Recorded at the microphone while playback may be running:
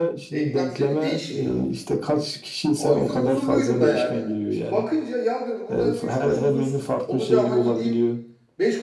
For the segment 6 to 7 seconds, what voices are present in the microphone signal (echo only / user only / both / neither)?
both